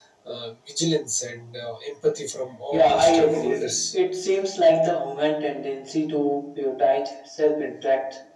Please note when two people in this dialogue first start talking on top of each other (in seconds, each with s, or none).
2.7 s